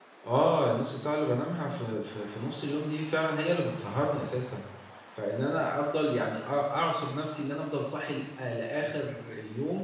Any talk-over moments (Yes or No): No